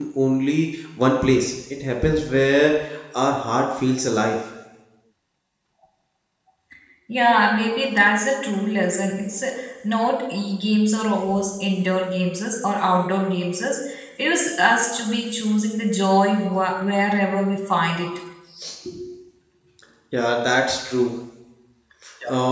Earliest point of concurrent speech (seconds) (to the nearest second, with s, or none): none